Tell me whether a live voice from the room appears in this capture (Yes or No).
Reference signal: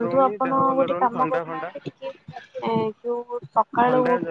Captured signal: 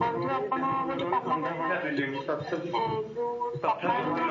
Yes